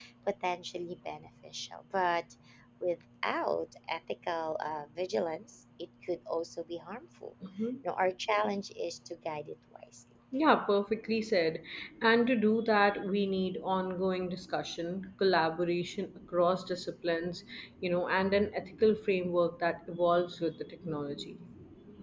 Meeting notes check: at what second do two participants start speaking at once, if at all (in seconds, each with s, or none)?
none